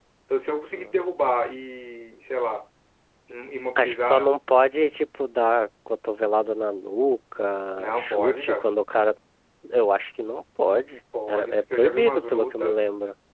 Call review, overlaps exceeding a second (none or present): present